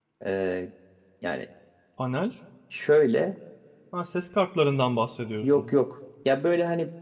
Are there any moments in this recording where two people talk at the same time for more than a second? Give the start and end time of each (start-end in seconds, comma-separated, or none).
none